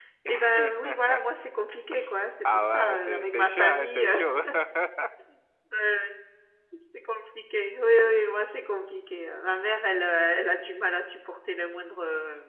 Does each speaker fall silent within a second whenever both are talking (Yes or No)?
No